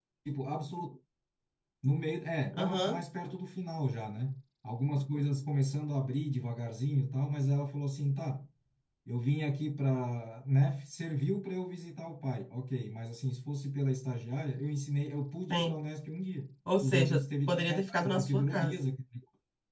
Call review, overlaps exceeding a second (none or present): present